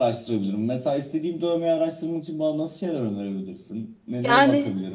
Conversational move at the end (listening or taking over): taking over